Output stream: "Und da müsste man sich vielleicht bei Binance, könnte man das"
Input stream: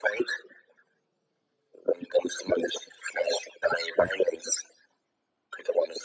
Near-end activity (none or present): none